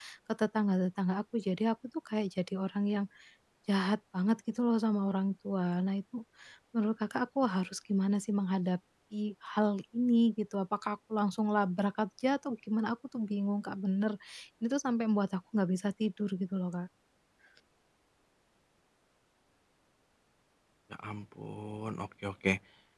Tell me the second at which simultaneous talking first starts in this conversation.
none

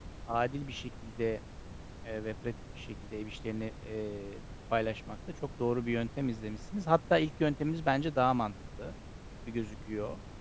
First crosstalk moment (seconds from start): none

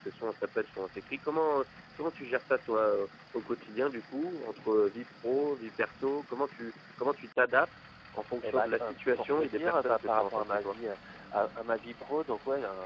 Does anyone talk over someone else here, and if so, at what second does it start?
8.4 s

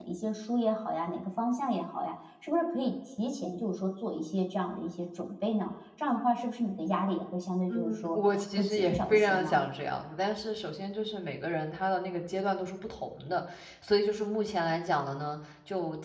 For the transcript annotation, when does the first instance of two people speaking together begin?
7.7 s

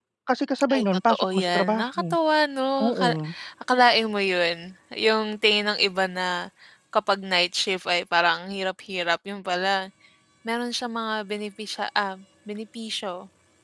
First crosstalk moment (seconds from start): 0.7 s

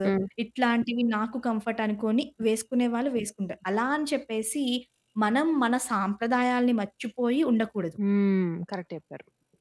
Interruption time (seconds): none

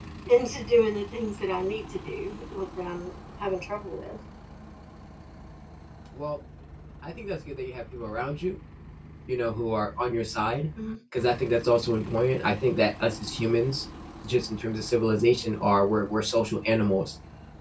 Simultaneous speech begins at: none

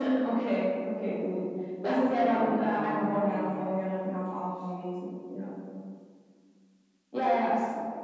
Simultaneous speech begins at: 1.8 s

